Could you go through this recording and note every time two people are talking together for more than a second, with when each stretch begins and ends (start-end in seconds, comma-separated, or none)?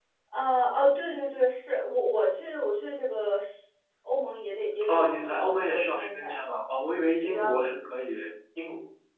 4.9-6.4